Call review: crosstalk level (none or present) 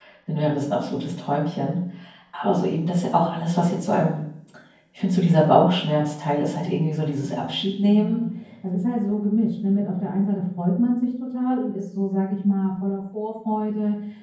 present